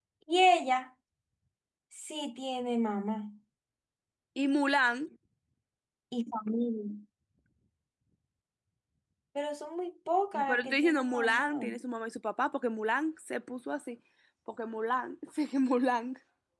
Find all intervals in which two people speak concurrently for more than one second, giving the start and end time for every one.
10.3-11.7

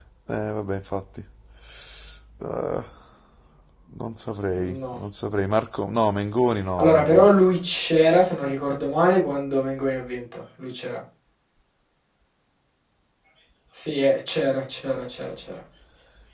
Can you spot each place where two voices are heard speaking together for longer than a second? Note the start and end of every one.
none

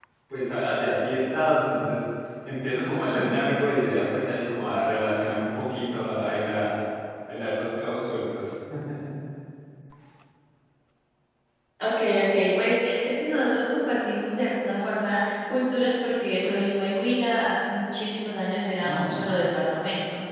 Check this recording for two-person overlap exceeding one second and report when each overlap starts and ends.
none

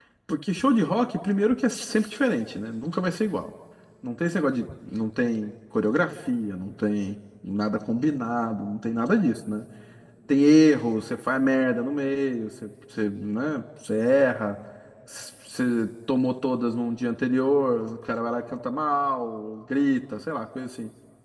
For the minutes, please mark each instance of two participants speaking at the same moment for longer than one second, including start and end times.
none

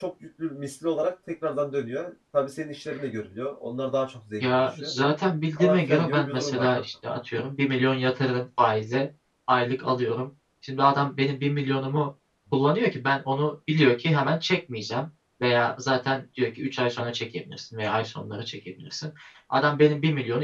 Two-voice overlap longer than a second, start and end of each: 5.6-6.8

